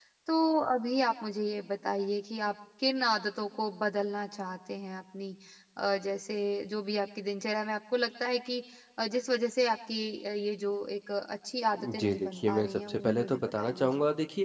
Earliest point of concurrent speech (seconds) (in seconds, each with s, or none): 11.8 s